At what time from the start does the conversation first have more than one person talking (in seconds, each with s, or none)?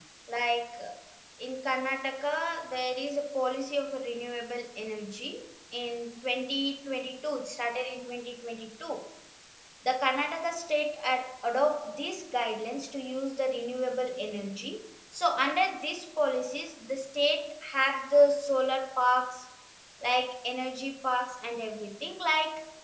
none